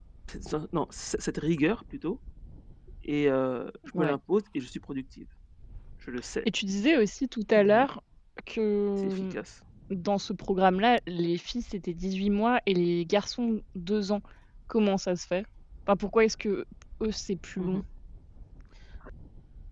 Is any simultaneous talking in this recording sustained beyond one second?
No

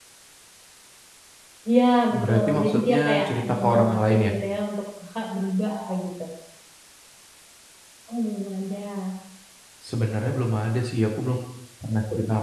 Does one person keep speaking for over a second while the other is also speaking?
Yes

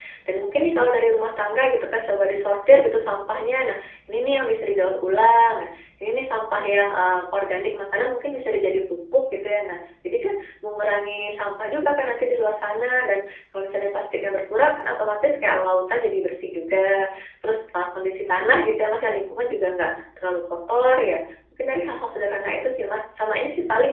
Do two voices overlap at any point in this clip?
No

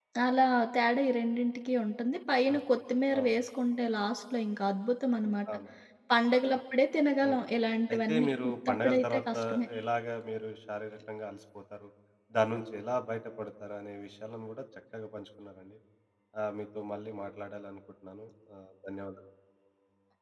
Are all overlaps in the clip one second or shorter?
No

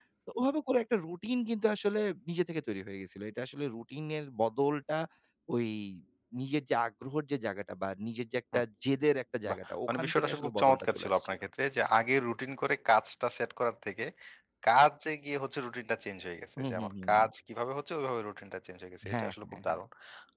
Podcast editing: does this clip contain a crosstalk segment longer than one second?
Yes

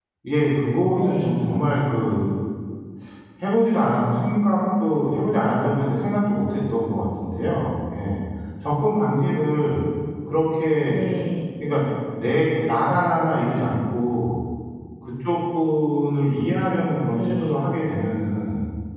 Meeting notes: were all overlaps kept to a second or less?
Yes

